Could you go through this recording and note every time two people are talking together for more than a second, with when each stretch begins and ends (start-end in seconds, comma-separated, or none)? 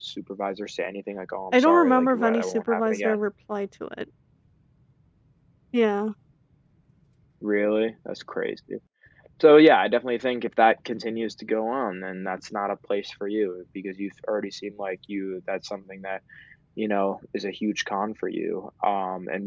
1.5-3.2